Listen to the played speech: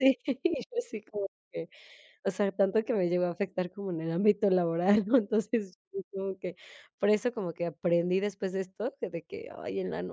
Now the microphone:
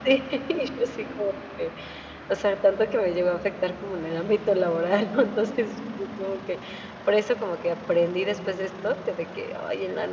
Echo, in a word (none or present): present